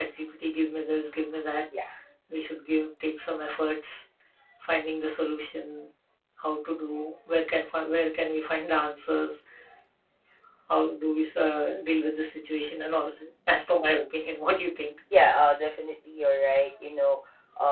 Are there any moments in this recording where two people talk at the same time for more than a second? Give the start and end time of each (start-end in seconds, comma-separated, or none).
none